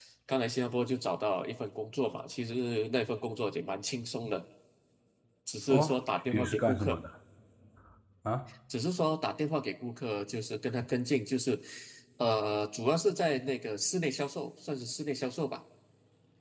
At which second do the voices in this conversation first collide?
5.7 s

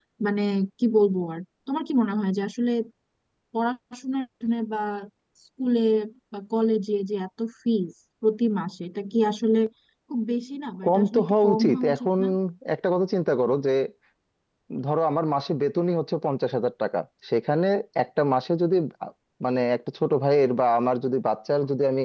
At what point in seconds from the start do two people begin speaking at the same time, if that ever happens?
10.8 s

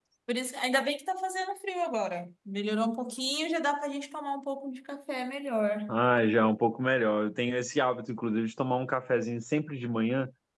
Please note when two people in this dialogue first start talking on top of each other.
none

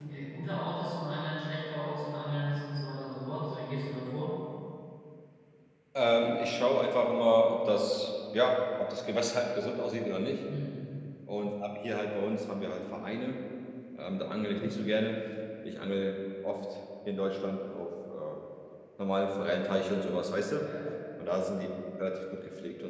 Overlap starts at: none

